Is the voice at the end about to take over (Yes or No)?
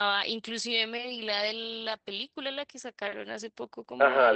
Yes